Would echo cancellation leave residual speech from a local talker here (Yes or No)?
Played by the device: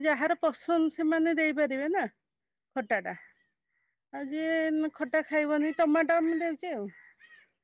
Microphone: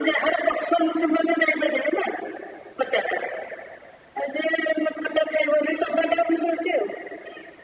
No